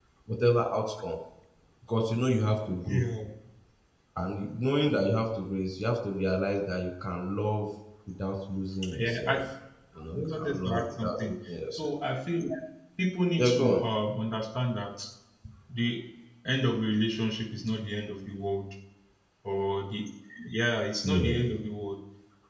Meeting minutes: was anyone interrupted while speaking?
Yes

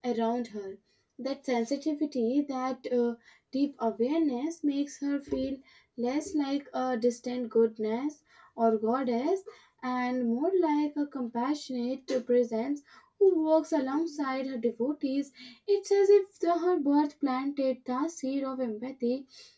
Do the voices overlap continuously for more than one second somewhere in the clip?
No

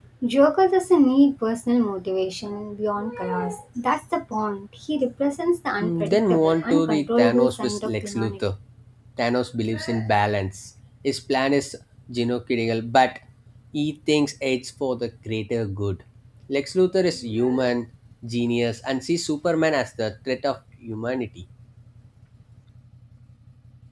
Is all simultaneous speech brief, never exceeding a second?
No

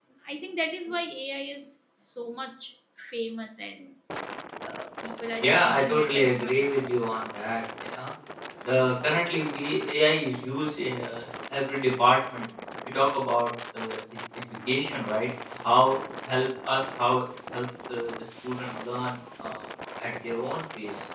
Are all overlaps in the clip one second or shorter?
No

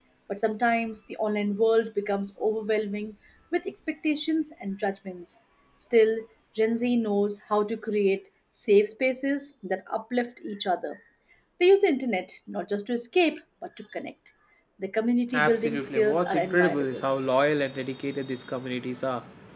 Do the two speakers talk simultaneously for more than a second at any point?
Yes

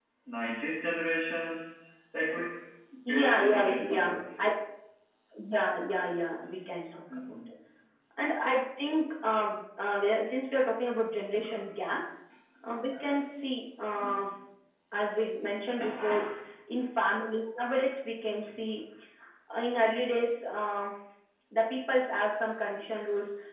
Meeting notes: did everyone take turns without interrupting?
No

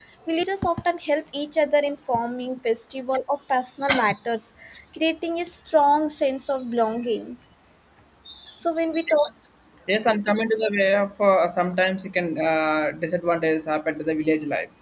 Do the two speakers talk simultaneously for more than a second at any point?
No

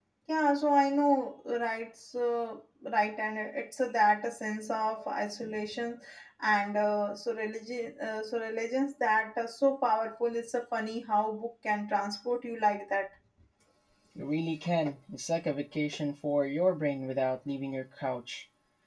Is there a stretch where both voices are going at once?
No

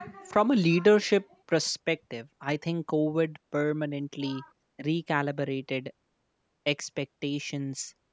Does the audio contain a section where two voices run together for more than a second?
No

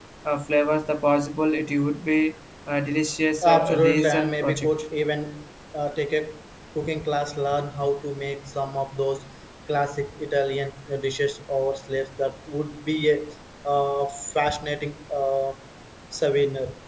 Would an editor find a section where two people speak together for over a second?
Yes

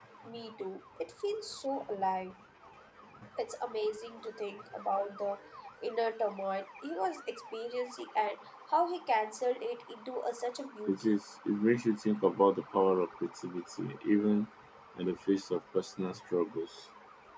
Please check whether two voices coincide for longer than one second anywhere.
No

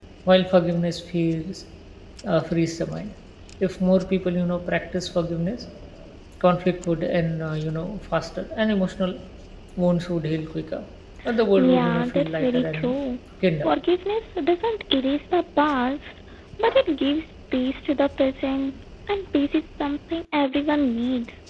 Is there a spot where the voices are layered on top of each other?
Yes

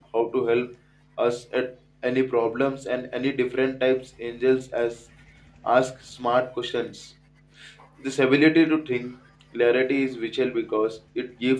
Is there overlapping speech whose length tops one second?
No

